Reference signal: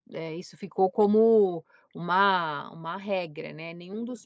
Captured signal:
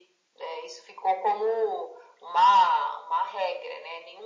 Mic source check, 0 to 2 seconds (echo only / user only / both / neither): echo only